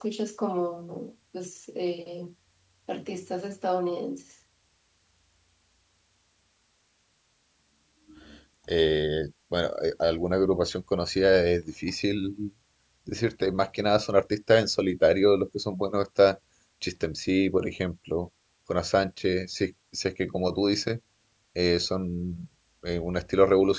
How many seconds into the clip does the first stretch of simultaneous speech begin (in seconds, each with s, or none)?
none